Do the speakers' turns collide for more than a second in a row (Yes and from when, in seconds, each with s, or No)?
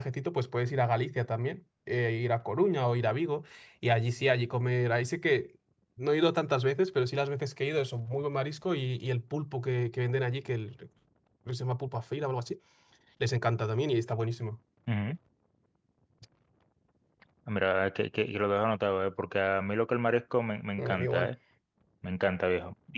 No